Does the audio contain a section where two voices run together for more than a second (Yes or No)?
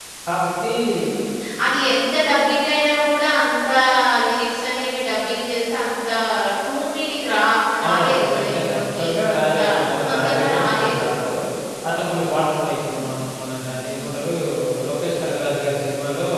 Yes